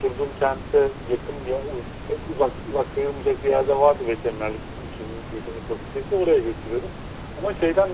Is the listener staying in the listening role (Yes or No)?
Yes